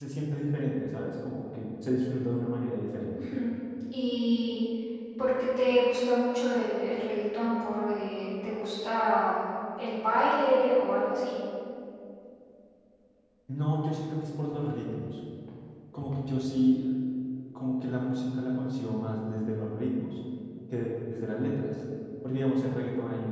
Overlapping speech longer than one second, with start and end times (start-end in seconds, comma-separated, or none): none